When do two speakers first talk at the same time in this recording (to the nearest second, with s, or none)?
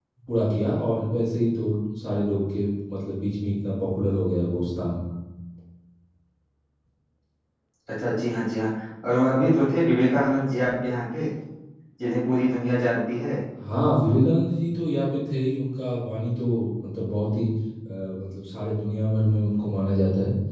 none